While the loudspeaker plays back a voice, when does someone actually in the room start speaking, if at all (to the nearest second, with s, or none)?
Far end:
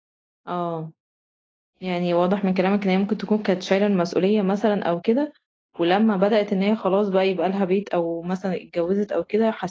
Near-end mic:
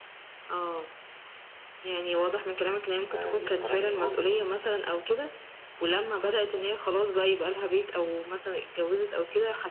3 s